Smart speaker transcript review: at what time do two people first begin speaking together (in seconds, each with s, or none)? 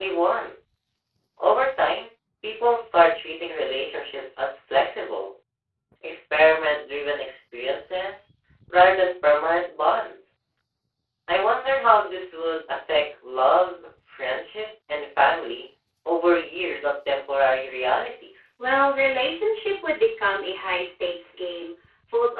none